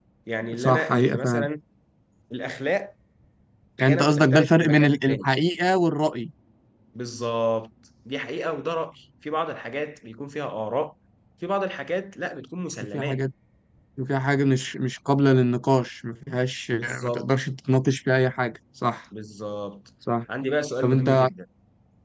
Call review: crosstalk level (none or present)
present